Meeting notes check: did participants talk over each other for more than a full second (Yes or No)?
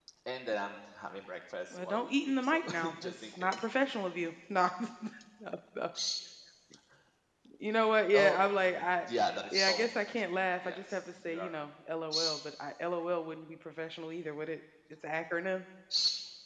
Yes